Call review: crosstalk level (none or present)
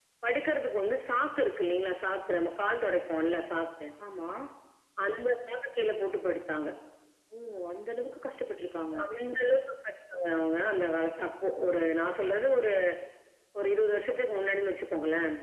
none